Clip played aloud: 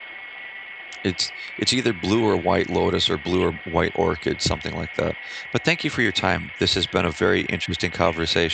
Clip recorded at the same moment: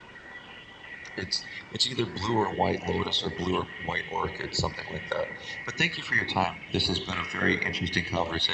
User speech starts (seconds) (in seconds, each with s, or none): none